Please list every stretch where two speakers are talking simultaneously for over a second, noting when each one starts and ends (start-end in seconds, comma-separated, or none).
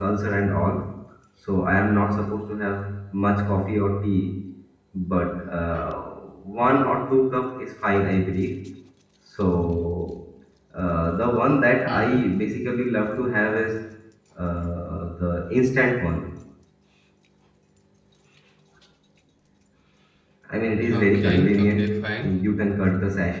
20.9-22.3